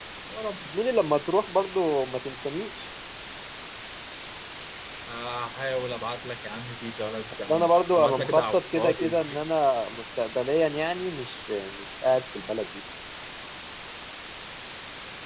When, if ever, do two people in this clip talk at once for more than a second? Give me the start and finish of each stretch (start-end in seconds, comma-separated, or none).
7.5-9.5